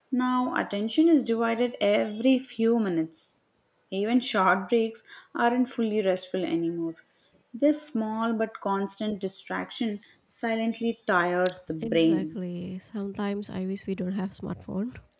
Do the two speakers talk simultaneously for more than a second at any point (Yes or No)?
No